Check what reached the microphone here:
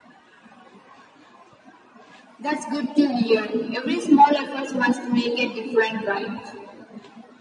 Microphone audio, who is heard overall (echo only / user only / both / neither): echo only